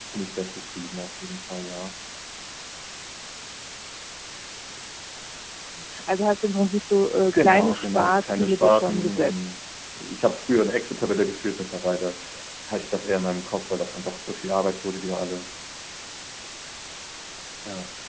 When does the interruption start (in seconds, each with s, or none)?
7.3 s